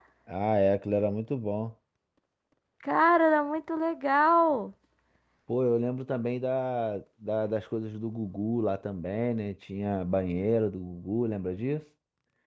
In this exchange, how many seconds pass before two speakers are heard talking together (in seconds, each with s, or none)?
none